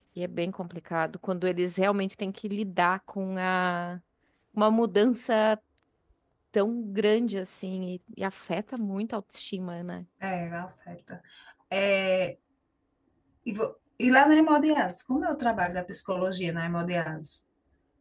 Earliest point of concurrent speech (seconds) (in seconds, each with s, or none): none